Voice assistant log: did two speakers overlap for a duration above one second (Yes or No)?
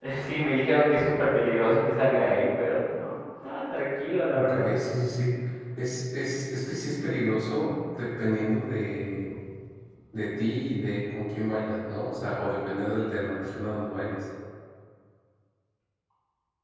No